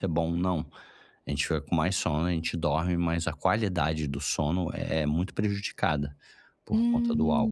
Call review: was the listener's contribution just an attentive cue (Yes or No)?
No